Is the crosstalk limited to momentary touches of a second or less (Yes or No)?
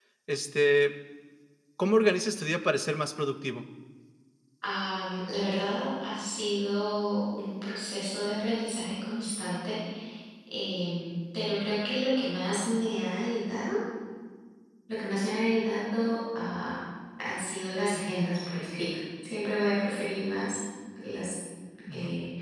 Yes